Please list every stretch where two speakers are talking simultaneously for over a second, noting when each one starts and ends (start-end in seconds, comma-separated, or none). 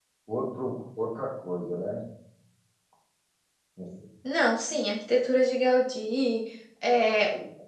none